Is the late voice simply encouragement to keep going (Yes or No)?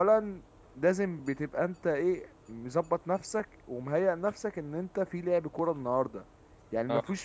Yes